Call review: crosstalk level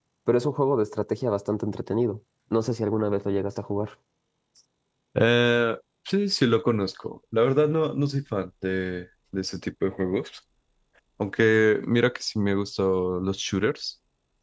none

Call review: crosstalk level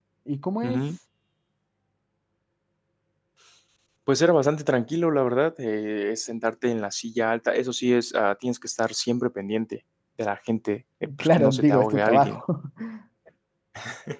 present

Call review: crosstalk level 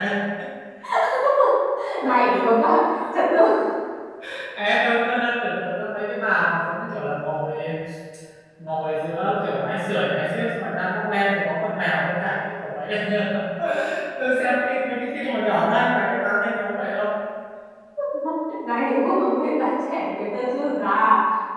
none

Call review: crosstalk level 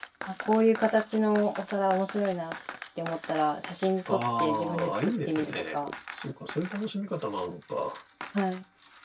present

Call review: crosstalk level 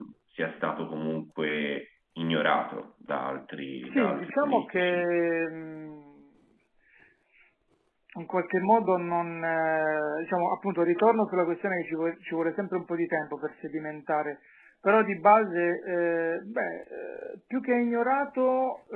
present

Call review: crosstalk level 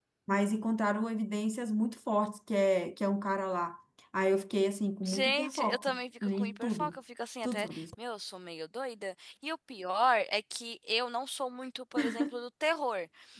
present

